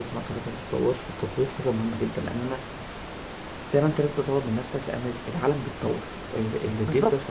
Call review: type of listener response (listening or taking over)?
taking over